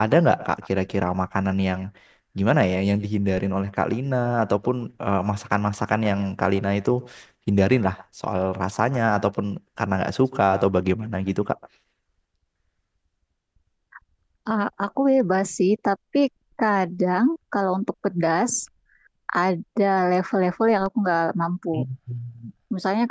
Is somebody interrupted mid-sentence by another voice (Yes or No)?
No